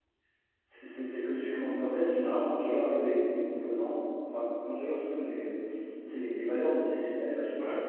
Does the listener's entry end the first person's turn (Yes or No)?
No